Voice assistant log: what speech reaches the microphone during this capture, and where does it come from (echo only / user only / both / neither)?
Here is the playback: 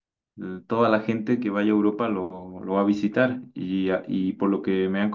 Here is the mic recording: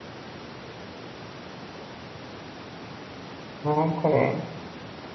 user only